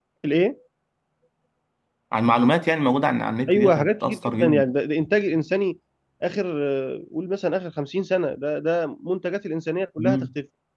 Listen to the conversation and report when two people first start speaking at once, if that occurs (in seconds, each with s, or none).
3.5 s